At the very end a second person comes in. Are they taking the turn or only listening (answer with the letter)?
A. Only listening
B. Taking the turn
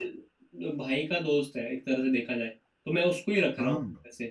A